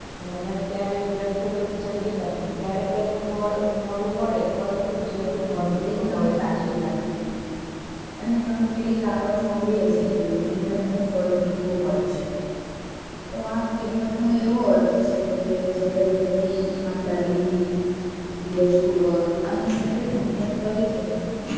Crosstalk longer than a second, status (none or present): present